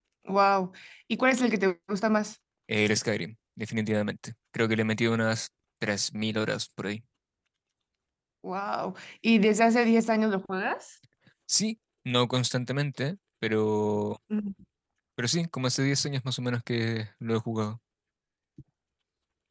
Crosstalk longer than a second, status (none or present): none